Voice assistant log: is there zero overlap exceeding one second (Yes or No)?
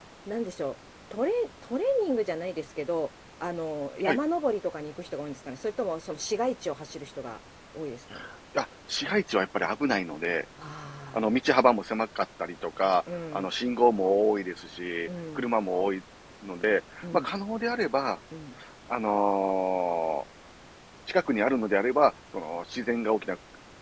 Yes